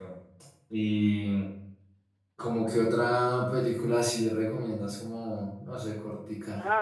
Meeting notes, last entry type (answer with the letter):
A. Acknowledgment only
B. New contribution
B